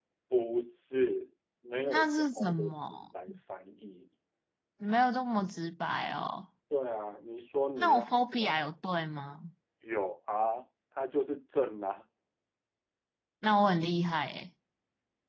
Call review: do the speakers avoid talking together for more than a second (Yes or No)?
No